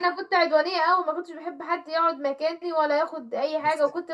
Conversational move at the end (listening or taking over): listening